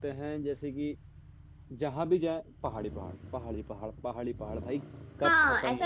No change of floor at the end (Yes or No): No